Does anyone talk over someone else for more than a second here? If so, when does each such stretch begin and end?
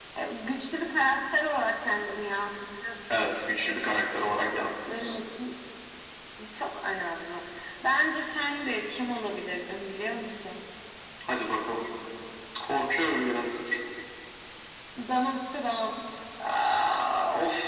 none

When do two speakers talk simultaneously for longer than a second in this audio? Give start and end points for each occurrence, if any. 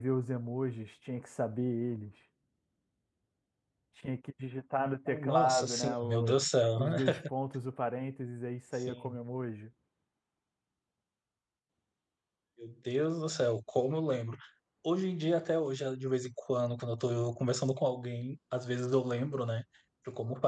5.1-6.4

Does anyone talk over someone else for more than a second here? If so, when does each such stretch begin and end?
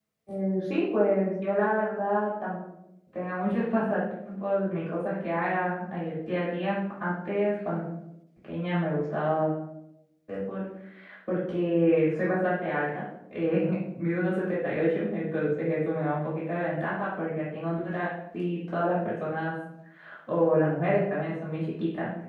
none

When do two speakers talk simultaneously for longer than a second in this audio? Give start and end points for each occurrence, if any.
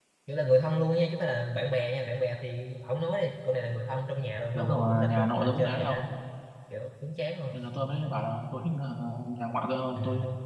4.5-6.0

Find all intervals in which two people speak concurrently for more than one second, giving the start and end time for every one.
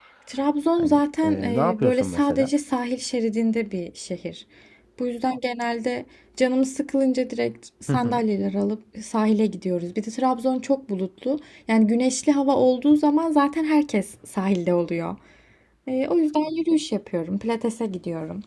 0.8-2.5

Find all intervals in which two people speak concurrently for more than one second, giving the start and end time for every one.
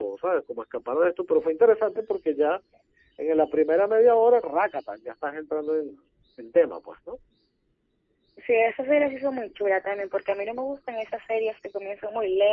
none

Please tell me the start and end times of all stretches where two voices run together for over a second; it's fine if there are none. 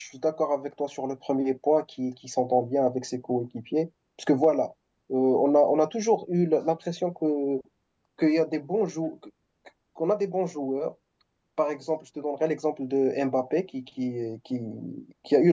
none

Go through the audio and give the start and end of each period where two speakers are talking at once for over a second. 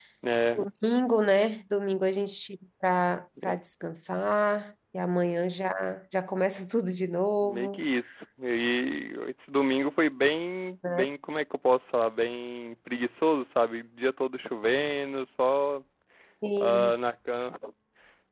none

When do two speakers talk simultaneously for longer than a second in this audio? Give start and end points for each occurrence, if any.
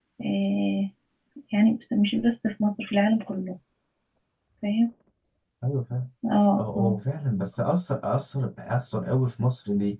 none

